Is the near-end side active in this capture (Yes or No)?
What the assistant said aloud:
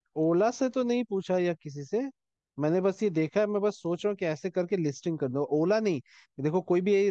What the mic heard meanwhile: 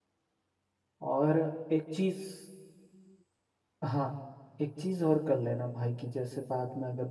Yes